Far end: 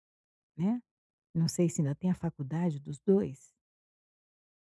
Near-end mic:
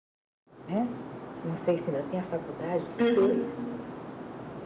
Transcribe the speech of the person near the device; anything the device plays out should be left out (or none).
uhum,